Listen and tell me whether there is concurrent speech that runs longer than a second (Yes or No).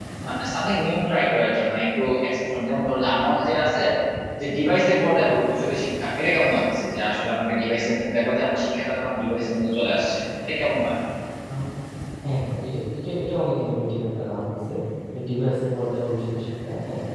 No